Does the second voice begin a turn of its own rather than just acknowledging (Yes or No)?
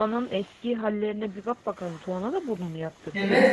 Yes